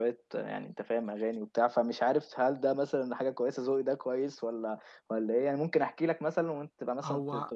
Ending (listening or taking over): taking over